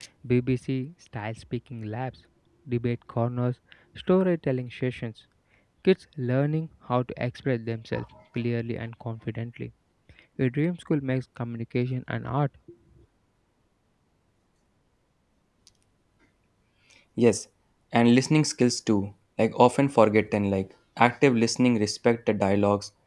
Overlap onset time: none

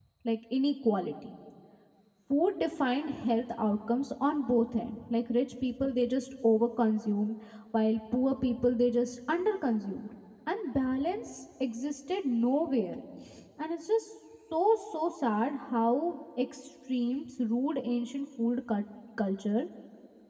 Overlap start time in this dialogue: none

